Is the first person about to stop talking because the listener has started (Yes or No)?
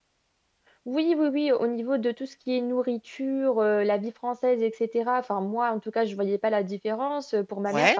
No